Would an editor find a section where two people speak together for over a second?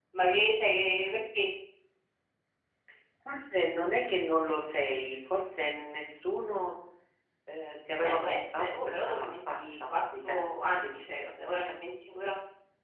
Yes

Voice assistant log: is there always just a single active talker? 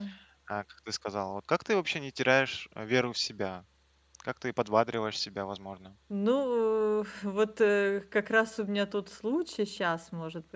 Yes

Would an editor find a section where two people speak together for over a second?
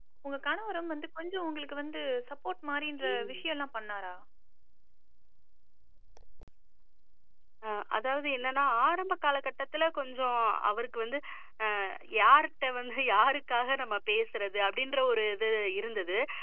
No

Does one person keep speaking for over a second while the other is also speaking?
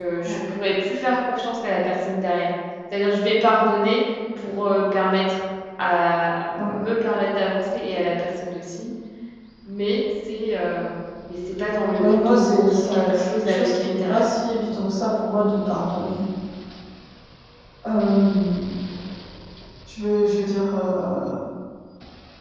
Yes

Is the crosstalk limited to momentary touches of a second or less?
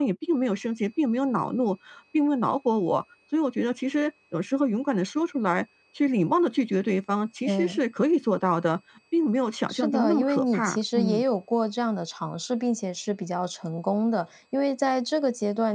No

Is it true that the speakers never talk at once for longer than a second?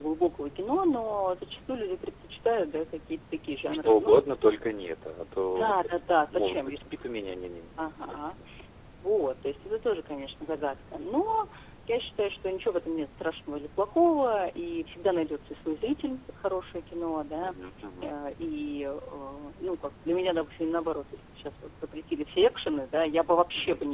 No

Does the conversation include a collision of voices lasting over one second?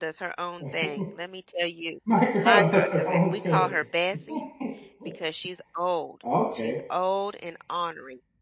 Yes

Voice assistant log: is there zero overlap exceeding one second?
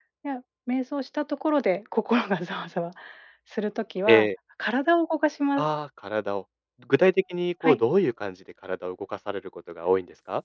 Yes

